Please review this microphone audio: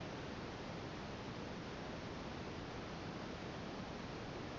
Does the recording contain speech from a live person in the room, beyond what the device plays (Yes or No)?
No